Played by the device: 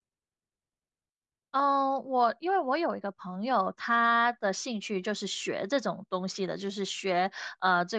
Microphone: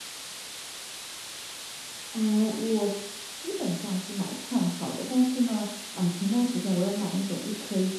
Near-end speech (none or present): present